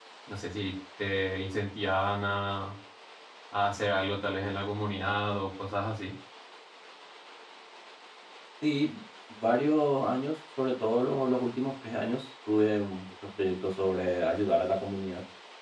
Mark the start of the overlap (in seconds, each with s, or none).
none